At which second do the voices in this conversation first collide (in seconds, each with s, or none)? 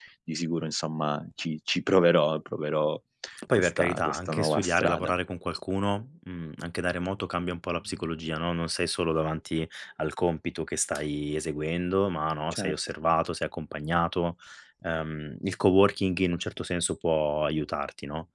3.6 s